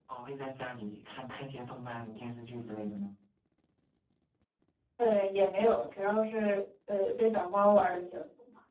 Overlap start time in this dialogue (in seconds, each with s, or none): none